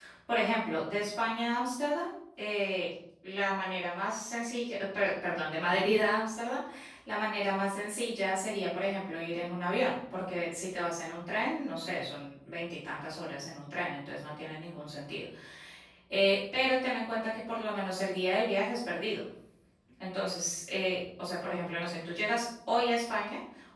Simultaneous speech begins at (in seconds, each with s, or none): none